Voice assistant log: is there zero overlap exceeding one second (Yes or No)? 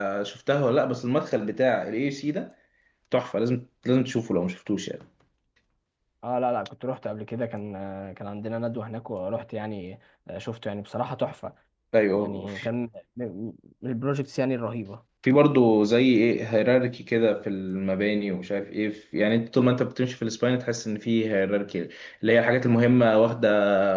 Yes